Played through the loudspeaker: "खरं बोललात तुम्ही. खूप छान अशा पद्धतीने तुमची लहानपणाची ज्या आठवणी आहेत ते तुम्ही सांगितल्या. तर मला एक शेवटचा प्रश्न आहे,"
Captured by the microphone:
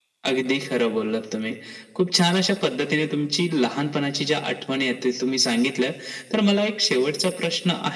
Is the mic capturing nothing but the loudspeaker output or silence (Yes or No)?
Yes